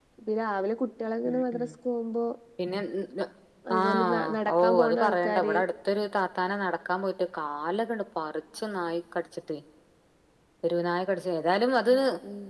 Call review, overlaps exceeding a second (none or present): present